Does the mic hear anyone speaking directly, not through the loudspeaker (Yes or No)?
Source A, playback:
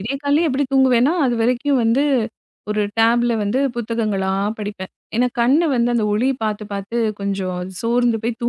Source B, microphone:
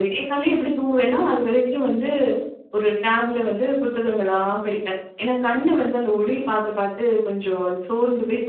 No